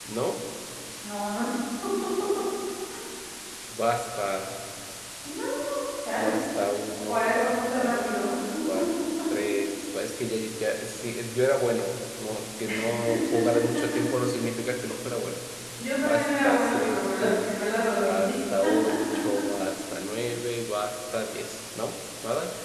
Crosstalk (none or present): present